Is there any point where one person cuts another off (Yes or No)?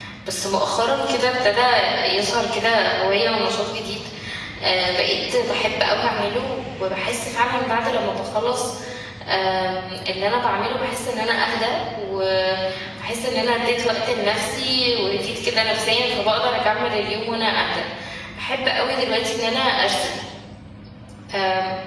No